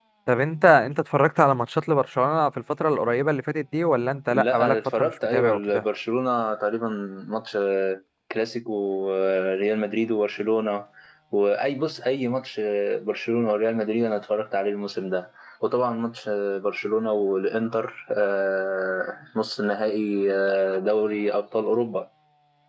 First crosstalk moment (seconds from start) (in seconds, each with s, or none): 4.3 s